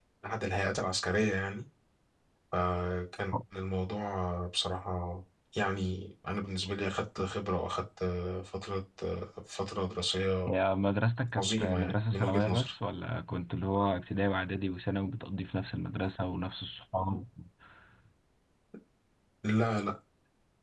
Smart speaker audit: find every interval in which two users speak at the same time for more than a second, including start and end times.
11.3-12.7

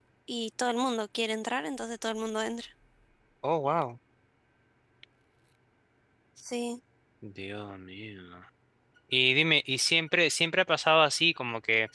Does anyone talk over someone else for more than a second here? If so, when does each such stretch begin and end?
none

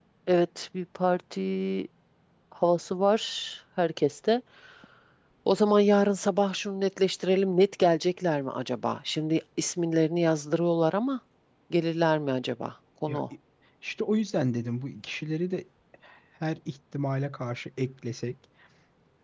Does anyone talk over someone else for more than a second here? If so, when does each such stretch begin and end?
none

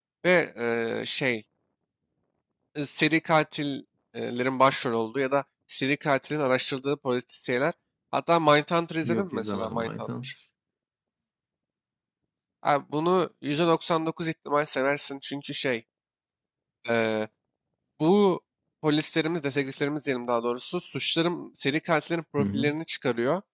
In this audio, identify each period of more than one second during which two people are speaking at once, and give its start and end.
9.0-10.3

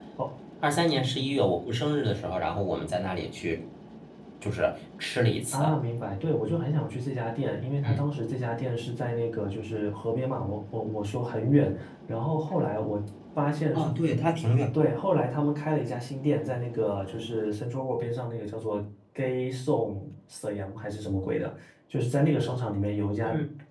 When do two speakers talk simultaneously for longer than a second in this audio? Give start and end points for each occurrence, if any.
none

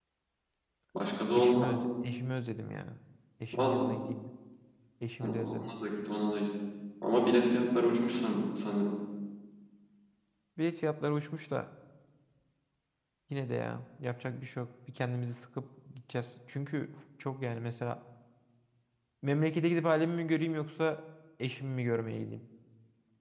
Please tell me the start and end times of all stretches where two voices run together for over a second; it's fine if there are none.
none

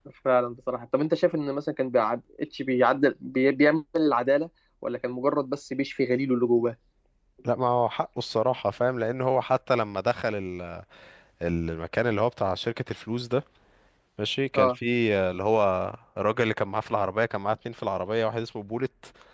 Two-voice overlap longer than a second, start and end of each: none

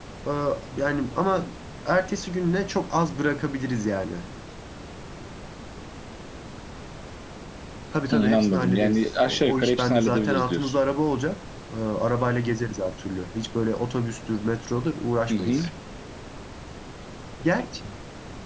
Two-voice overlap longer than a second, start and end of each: 8.1-10.7

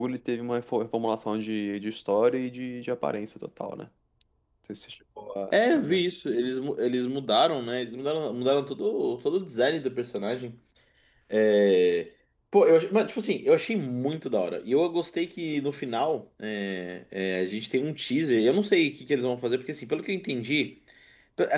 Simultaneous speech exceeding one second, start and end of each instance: none

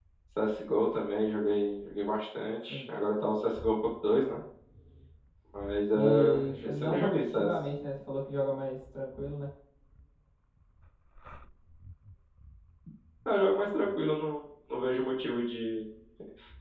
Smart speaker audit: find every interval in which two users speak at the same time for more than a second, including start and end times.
5.9-7.7

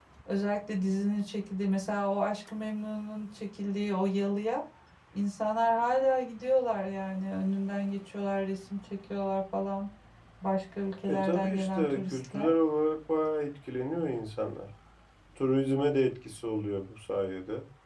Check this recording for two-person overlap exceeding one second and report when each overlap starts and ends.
11.1-12.5

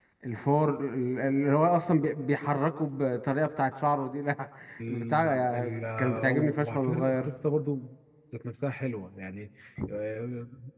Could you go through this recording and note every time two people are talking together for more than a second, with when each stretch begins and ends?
4.9-7.3

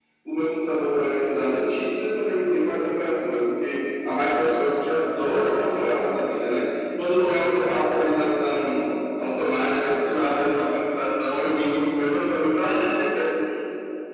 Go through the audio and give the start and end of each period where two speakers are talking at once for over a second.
none

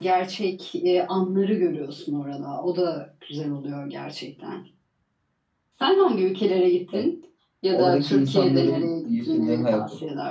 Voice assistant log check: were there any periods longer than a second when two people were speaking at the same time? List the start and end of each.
7.7-9.8

